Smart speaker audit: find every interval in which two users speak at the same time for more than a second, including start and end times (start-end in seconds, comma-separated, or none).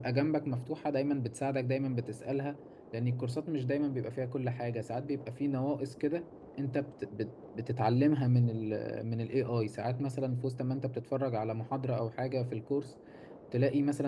none